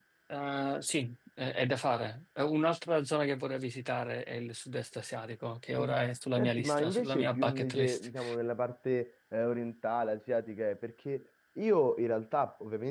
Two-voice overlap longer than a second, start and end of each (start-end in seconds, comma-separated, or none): 6.4-8.1